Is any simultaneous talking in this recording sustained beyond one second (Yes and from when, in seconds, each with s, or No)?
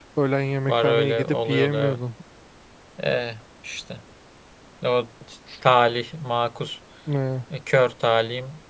Yes, from 0.7 s